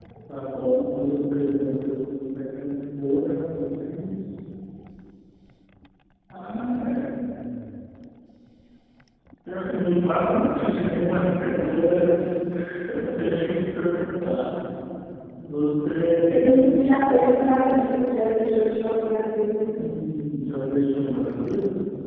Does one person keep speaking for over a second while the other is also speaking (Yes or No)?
No